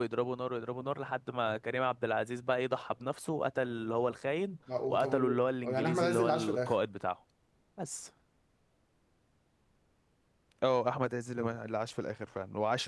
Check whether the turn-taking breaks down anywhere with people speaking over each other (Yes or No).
Yes